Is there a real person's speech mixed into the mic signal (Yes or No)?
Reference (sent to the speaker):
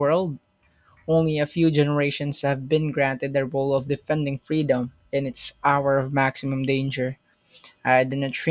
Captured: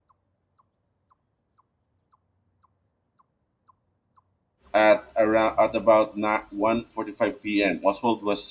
Yes